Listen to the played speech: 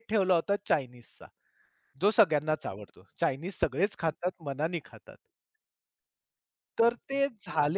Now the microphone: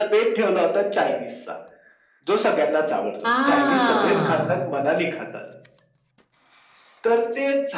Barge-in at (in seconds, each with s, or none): 3.2 s